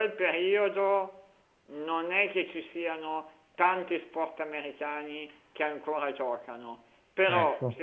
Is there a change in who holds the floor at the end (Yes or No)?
No